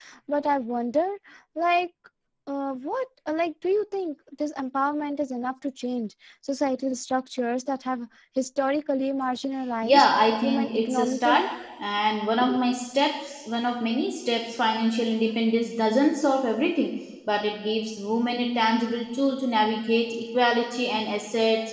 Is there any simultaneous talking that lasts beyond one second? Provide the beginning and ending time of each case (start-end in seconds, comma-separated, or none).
9.8-11.5